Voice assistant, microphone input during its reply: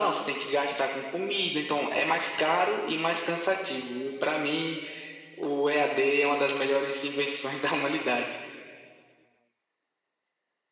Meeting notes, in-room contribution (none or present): none